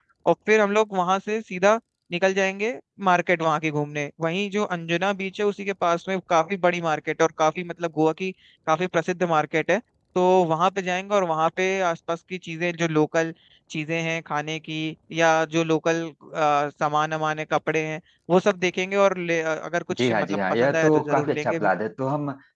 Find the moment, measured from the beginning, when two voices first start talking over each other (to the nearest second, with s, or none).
20 s